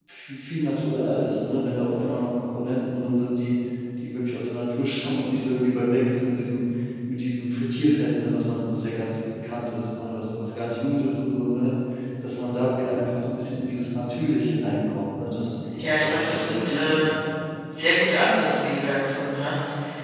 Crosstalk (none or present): present